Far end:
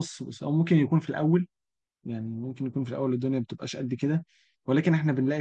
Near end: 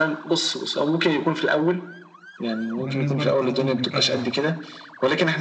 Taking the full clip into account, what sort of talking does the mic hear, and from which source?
both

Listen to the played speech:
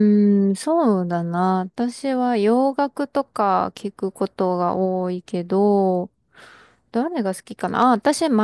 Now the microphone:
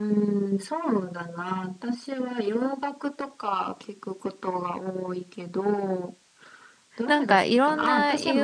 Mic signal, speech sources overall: both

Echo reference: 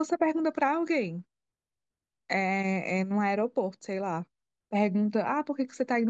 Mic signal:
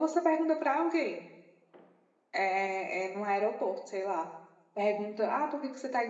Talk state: echo only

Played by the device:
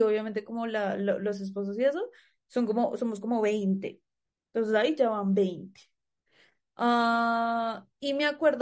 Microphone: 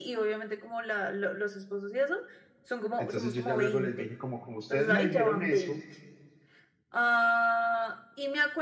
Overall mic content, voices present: both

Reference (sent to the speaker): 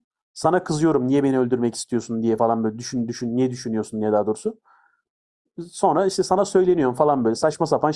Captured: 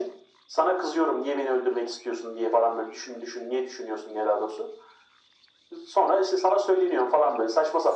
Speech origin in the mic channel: echo only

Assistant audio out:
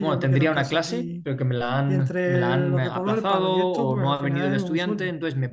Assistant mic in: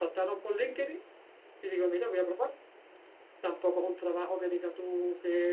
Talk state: user only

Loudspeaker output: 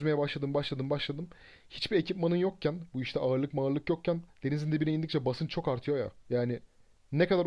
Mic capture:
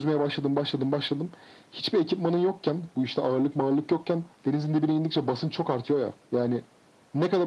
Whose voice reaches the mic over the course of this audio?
echo only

